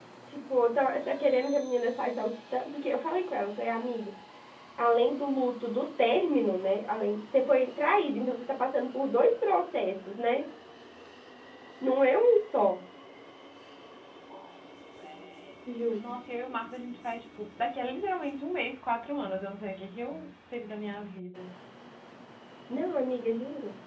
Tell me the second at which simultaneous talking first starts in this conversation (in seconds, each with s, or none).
none